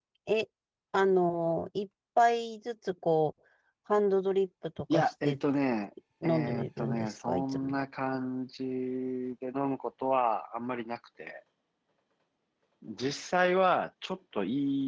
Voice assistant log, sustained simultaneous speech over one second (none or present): present